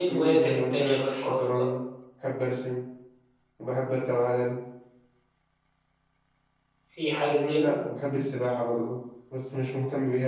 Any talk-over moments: Yes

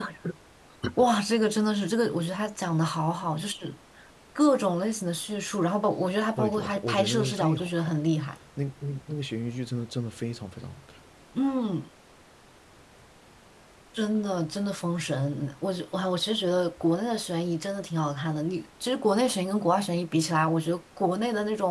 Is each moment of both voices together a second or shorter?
No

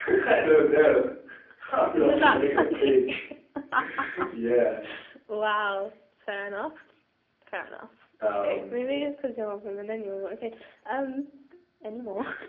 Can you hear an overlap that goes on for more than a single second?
Yes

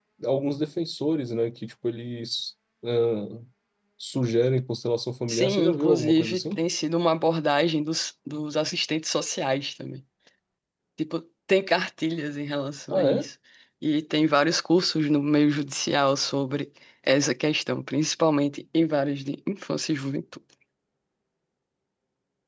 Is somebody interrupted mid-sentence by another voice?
Yes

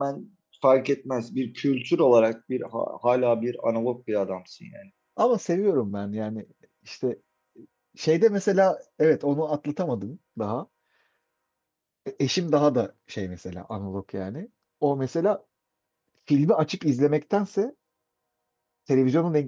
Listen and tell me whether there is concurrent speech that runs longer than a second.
No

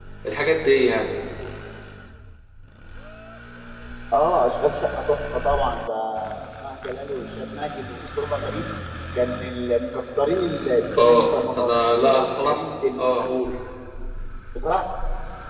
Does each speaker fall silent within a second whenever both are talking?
No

